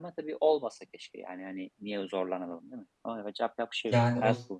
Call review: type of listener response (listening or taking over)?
taking over